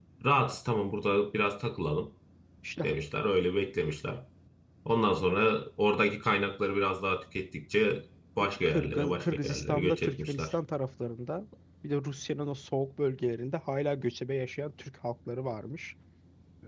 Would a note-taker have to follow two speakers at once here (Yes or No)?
Yes